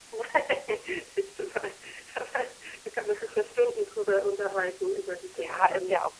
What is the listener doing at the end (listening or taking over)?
taking over